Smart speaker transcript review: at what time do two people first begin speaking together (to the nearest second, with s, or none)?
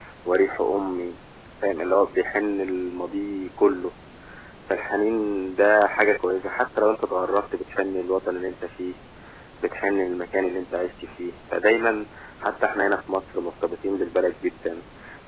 none